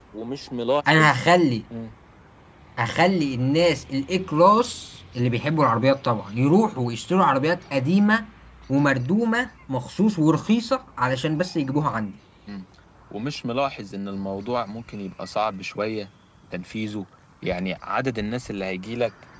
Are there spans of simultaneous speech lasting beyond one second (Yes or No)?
No